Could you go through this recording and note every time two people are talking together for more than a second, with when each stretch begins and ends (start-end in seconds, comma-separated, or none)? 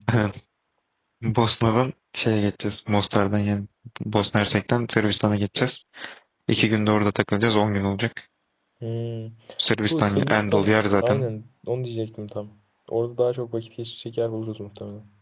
9.9-11.2